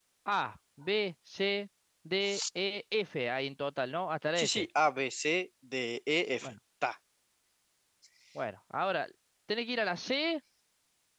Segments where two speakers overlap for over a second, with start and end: none

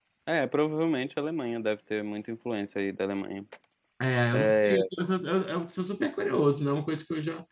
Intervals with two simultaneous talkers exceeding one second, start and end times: none

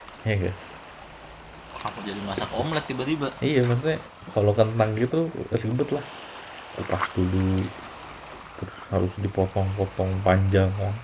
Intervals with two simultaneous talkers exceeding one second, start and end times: none

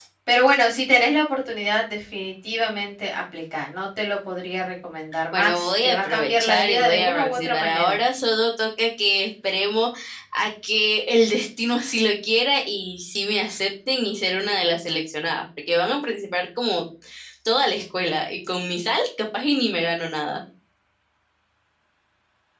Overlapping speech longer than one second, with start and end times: 5.3-8.0

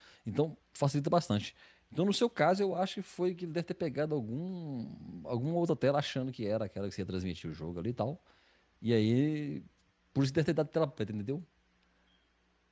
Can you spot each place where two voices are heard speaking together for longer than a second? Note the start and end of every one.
none

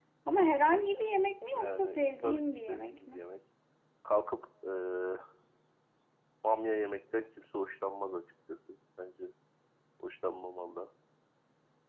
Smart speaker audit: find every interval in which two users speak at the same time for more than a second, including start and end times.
1.5-3.2

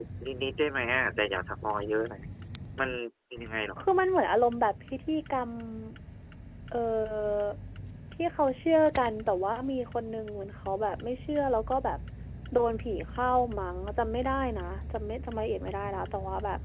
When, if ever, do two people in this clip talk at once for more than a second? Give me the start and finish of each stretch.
none

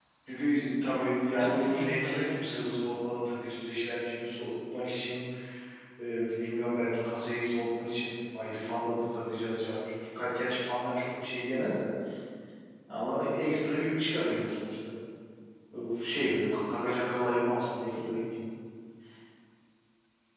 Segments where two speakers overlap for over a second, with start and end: 1.4-2.8

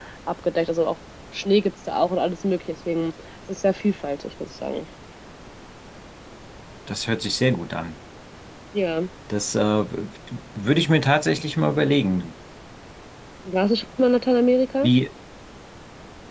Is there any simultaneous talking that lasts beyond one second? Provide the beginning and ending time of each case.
none

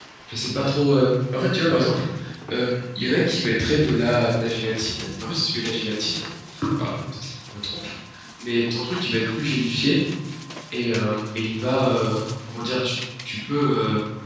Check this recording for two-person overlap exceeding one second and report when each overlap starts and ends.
none

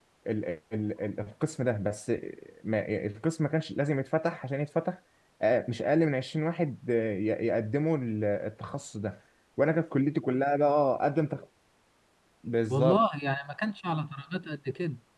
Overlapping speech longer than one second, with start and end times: none

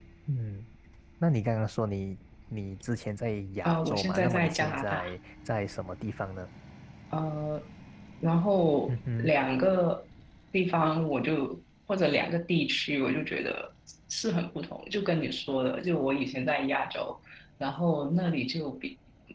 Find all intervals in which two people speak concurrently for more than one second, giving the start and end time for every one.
3.6-5.1

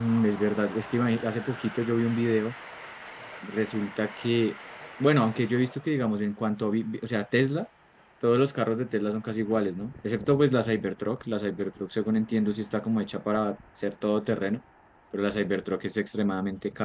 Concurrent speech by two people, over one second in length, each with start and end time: none

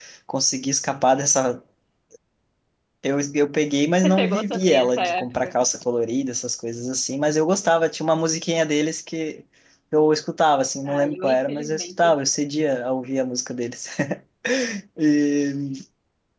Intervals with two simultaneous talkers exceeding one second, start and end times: 4.0-5.5, 10.8-12.1

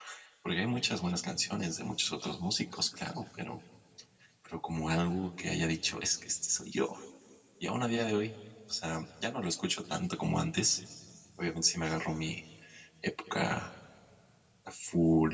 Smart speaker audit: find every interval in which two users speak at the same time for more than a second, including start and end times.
none

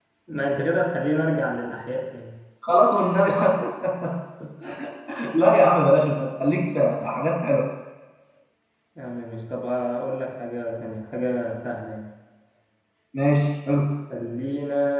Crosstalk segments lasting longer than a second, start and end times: none

